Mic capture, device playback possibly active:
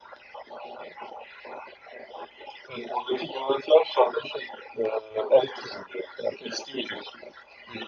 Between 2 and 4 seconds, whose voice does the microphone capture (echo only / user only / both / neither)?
echo only